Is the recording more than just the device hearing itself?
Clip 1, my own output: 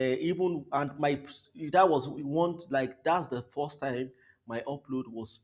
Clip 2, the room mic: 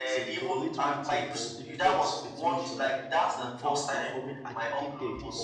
Yes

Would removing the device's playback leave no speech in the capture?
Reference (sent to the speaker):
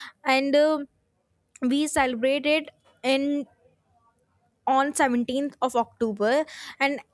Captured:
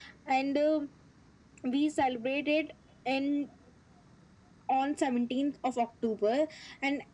Yes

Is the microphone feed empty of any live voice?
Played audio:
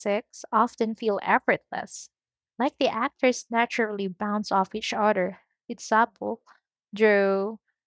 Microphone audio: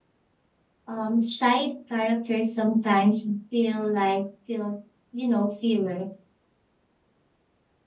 No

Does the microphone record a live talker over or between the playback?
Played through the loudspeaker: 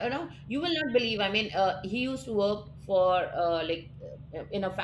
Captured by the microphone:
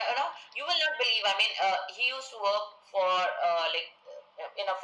No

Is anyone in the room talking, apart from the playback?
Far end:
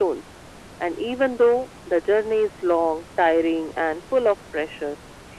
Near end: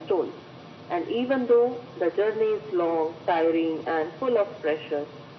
No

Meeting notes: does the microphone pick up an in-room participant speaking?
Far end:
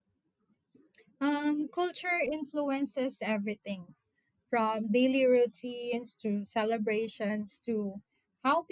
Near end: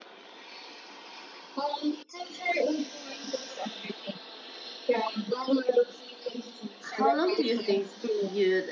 Yes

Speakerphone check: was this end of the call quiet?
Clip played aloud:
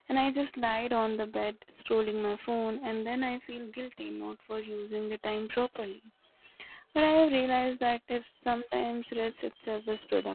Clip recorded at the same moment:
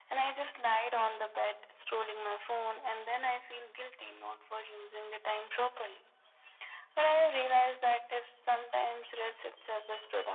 Yes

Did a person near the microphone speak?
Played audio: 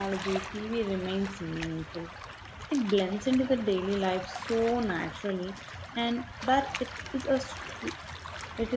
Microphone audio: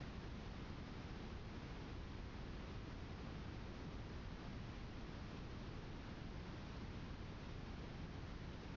No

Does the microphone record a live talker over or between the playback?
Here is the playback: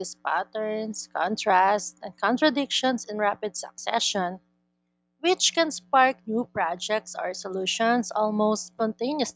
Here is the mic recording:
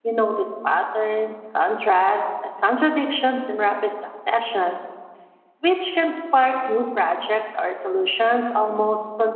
No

